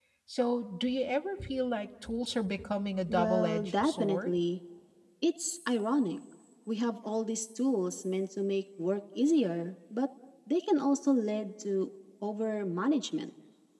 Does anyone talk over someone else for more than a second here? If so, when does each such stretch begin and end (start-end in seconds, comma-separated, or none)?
3.1-4.3